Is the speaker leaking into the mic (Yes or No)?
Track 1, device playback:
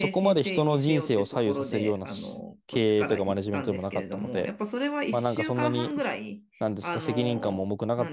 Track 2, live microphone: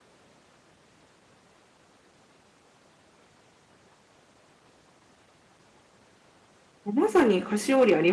No